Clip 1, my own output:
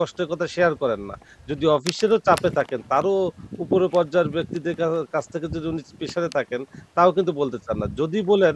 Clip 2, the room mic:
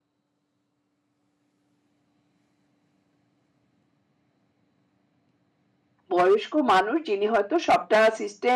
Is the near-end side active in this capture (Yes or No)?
Yes